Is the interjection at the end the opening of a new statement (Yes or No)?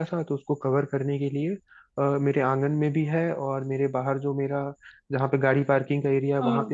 No